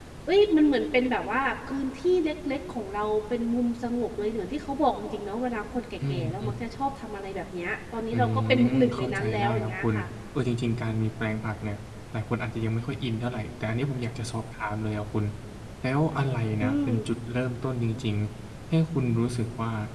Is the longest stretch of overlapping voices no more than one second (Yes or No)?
No